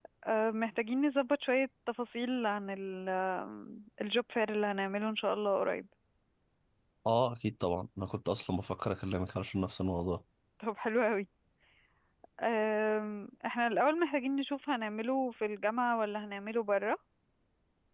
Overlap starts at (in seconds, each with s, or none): none